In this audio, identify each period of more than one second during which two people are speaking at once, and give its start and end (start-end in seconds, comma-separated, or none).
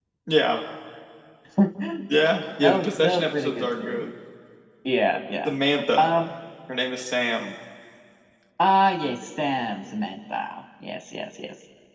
2.8-4.0